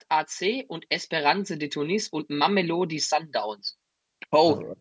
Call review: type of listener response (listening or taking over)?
listening